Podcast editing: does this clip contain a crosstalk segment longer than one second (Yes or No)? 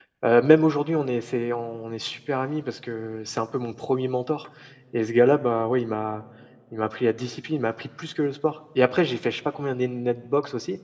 No